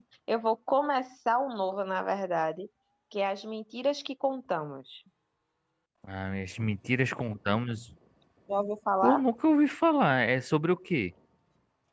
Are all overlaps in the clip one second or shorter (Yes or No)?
Yes